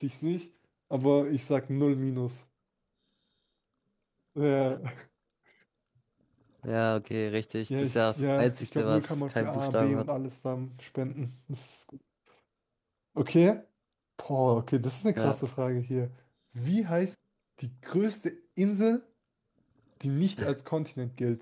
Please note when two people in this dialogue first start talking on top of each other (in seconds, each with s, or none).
7.7 s